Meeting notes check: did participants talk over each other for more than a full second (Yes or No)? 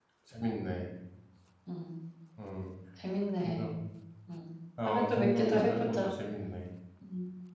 Yes